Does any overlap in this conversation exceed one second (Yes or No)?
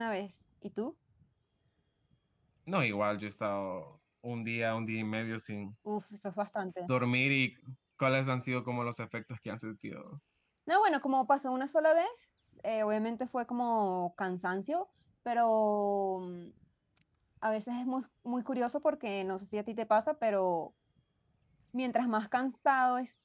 No